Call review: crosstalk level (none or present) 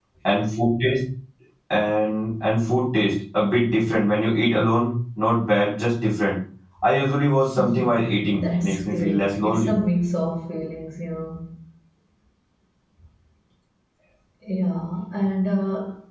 present